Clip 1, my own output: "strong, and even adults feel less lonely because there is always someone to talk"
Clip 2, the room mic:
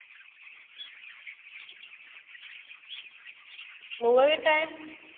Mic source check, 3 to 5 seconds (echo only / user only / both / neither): user only